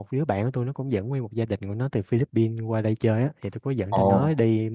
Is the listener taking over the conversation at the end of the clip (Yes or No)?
No